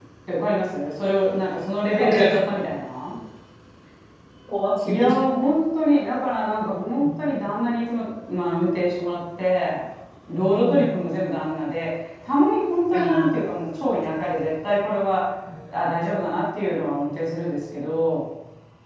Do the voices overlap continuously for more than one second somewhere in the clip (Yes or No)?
No